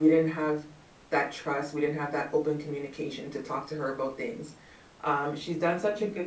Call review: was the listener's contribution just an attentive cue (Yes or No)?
Yes